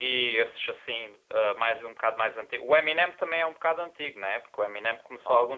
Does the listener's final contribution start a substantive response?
No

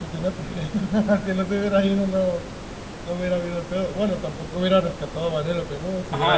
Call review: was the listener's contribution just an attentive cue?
No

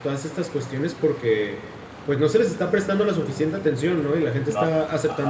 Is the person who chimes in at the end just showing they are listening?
Yes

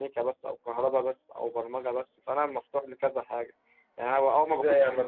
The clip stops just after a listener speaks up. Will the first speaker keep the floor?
No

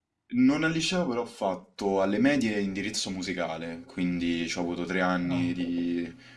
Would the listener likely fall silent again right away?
Yes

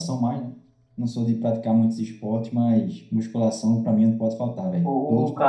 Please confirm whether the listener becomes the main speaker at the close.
Yes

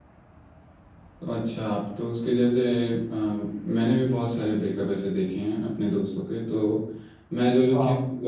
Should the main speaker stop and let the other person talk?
No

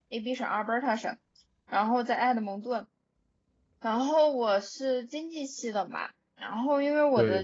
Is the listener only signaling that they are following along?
Yes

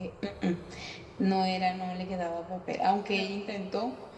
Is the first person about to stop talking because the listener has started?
No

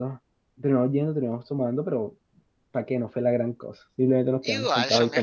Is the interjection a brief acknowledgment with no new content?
No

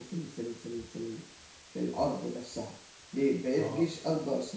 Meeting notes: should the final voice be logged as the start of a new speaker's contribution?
No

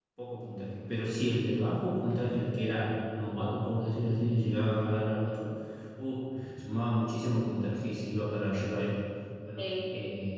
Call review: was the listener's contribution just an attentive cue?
Yes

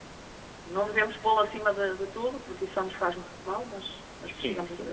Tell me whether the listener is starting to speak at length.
Yes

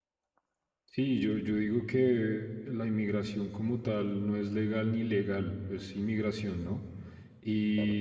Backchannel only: Yes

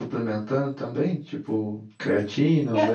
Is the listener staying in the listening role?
No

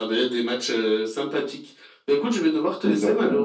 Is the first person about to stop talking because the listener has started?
No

